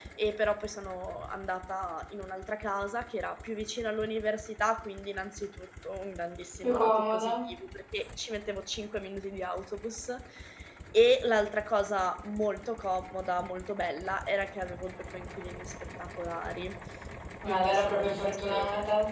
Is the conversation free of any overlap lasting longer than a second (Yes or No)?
No